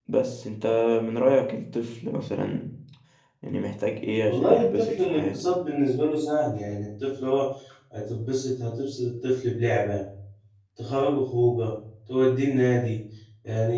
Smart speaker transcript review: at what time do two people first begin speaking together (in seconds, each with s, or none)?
4.3 s